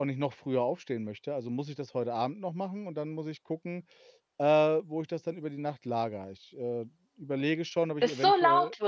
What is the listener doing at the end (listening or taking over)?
taking over